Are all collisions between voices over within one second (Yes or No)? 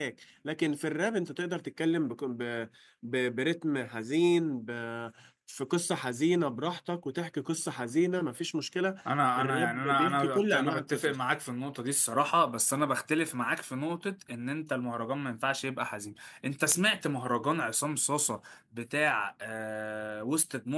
No